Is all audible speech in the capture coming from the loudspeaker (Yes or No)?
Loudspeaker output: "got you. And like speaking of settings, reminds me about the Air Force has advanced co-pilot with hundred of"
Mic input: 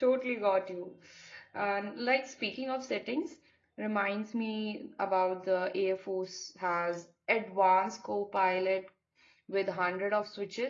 Yes